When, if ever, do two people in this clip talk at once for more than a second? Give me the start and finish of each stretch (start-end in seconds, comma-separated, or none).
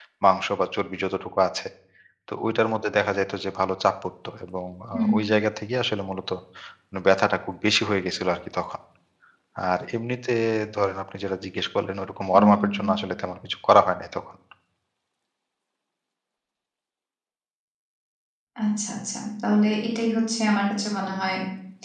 none